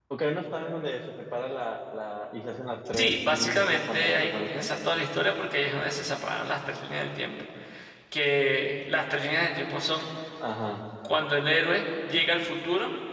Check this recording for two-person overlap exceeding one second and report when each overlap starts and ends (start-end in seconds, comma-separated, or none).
3.0-4.7